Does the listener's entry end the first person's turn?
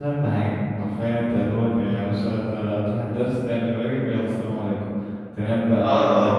No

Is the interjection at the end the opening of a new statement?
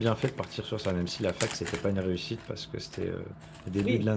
No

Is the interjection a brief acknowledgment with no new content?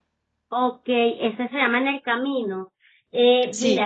Yes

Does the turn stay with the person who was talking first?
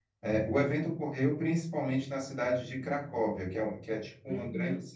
Yes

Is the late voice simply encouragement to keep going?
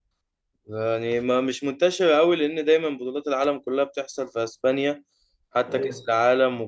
Yes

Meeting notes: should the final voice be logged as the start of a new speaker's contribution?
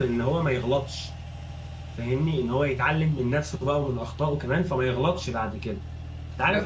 No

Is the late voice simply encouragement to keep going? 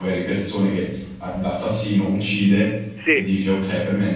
Yes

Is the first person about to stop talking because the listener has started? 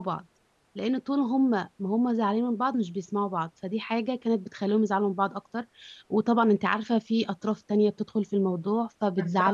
Yes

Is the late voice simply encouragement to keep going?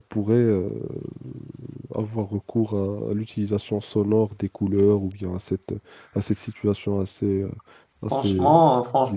No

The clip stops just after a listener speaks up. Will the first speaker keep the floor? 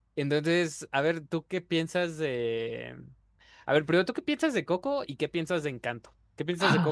Yes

